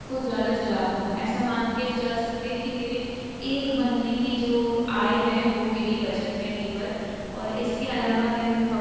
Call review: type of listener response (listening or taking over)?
listening